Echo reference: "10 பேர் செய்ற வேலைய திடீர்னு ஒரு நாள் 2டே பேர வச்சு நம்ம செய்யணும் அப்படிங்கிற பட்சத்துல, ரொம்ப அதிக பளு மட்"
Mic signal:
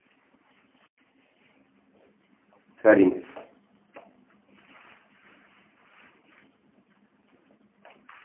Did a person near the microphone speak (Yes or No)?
Yes